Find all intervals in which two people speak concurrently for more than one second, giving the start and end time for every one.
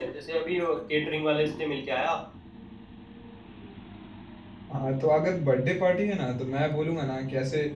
none

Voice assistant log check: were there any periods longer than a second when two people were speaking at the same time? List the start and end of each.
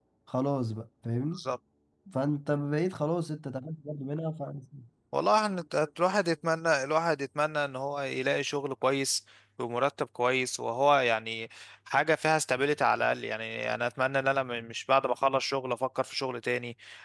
none

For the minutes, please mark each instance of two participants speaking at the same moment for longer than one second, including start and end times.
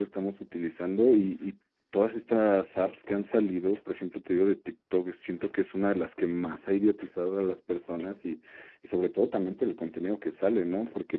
none

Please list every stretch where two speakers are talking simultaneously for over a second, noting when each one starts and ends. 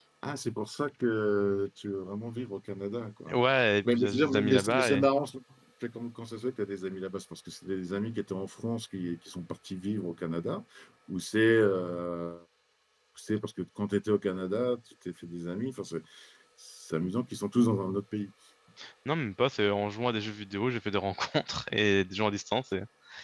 3.8-5.1

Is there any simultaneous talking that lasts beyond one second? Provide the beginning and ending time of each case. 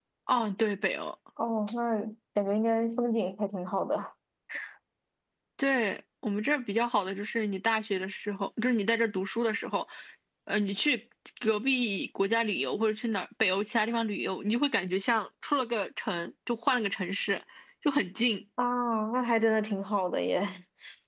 none

